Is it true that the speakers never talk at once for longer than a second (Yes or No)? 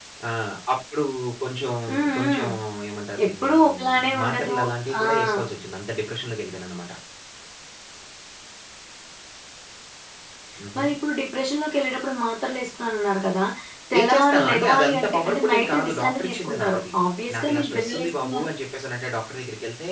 No